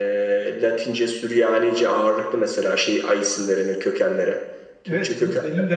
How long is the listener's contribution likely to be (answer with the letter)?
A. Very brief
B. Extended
B